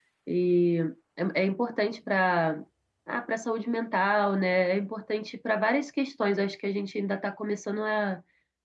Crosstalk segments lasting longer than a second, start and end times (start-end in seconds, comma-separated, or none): none